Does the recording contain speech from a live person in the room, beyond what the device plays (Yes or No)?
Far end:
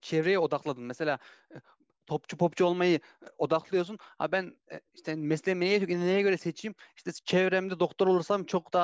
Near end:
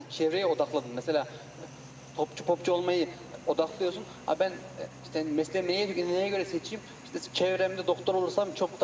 No